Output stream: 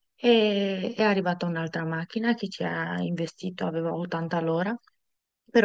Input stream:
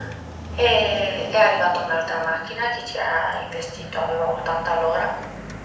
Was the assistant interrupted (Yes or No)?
No